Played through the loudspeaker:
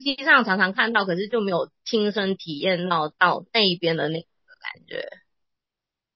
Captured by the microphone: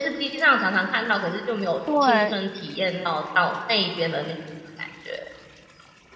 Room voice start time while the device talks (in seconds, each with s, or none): 1.8 s